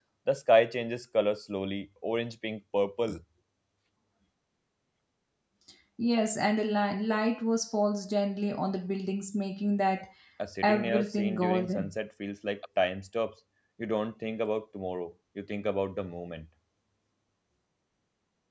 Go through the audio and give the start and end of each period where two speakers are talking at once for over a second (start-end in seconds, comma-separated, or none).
10.6-11.9